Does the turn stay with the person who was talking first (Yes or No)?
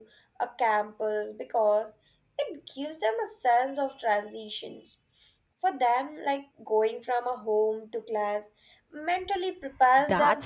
No